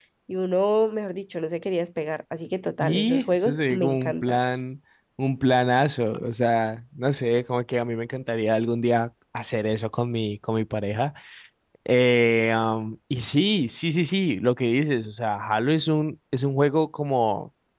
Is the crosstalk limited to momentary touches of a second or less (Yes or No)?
No